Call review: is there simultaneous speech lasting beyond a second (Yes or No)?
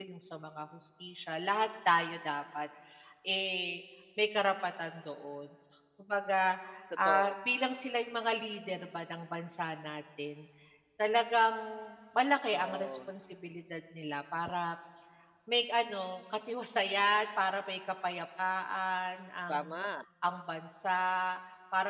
No